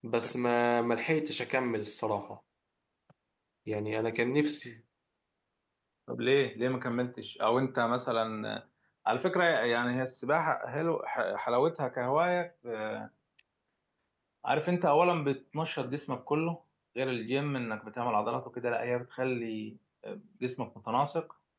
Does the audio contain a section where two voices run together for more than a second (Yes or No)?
No